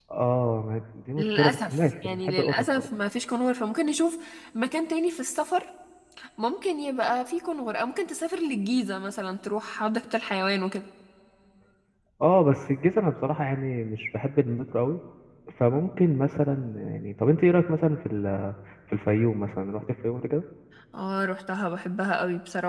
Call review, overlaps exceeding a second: present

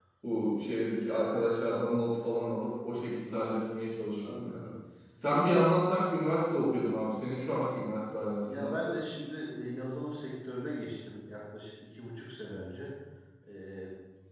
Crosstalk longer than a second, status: none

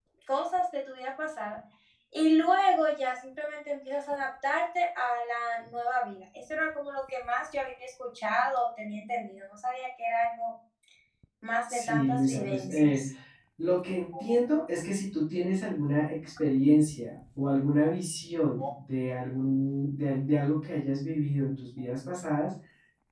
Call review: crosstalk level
present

